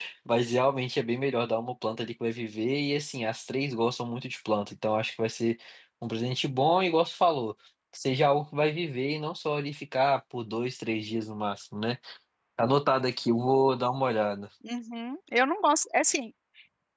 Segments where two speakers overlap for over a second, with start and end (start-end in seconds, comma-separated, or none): none